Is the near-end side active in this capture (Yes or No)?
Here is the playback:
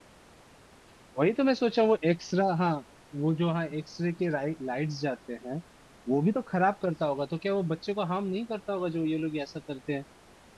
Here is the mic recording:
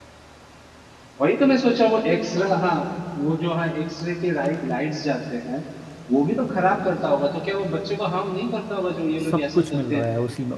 Yes